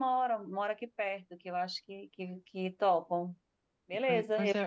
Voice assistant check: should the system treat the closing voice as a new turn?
Yes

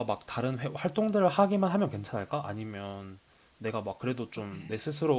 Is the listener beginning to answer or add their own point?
No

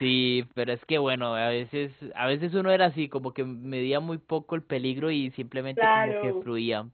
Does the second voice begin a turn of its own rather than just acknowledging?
No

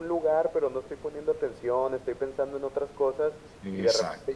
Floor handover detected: No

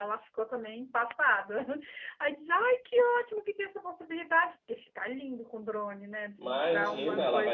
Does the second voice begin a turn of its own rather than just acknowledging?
Yes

